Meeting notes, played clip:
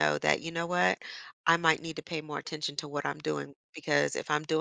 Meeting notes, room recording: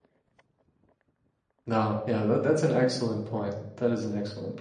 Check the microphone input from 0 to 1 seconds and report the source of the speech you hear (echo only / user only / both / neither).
neither